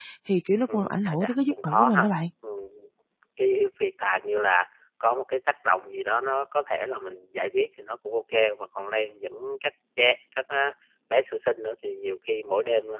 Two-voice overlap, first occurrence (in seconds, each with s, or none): 0.7 s